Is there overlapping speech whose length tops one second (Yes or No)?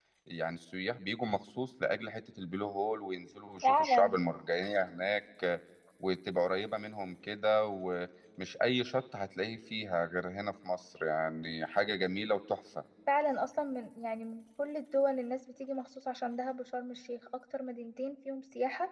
No